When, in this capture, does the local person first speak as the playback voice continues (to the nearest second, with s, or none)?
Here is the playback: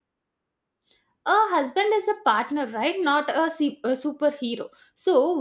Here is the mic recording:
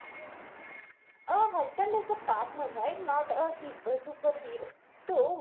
none